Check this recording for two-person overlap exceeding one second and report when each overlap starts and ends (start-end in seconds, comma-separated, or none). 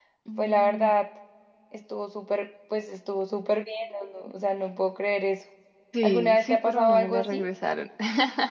6.0-7.5